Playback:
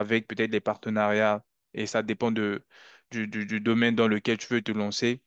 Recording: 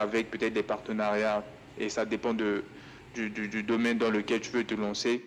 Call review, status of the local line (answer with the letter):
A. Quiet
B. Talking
A